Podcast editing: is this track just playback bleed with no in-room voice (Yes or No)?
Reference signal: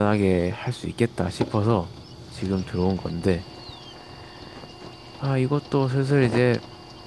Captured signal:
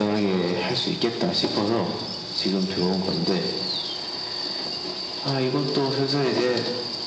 Yes